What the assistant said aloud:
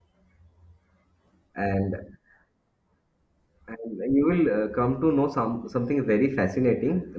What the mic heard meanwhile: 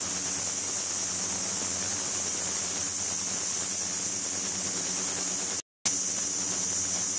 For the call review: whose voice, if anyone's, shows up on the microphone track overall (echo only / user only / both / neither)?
neither